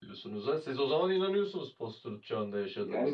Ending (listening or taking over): taking over